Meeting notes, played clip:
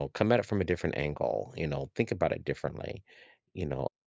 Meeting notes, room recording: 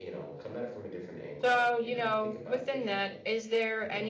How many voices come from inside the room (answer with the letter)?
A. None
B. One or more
B